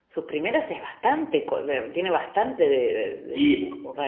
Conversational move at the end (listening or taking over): taking over